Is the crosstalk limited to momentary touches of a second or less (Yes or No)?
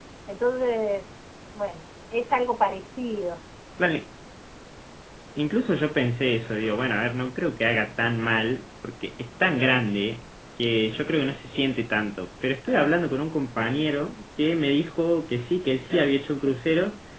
Yes